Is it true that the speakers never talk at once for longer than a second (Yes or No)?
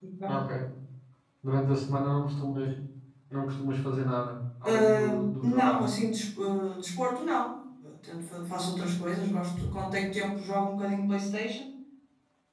No